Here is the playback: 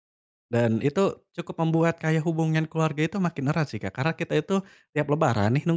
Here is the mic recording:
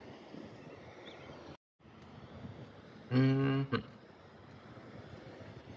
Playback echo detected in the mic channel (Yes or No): No